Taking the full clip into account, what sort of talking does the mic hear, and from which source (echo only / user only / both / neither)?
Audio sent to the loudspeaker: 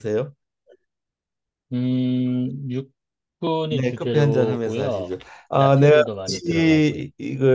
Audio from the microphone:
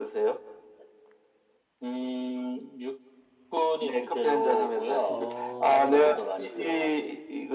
both